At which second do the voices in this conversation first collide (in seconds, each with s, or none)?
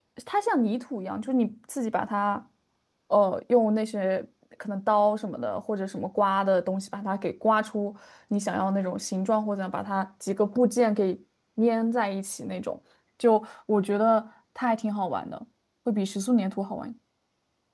none